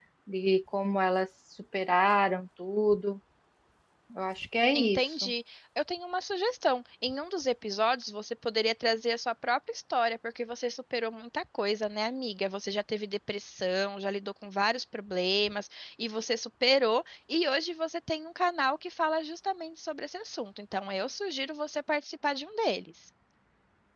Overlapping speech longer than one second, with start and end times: none

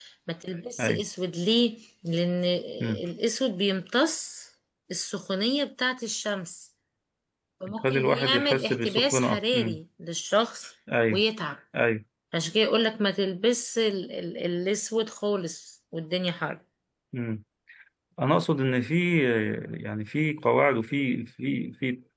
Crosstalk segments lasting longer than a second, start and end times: 7.7-9.8

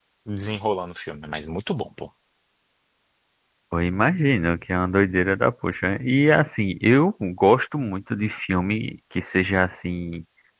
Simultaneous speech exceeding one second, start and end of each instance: none

